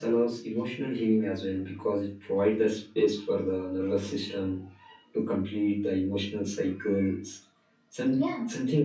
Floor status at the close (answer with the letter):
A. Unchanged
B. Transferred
A